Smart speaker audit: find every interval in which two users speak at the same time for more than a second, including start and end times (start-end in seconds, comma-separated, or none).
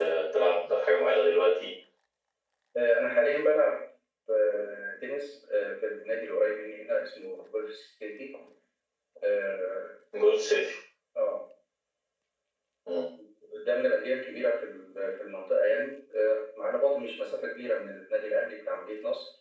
none